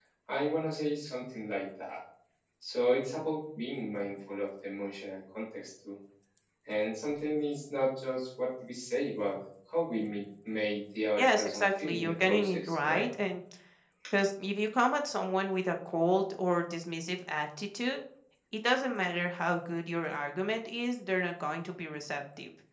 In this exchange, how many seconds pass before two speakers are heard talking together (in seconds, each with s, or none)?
11.1 s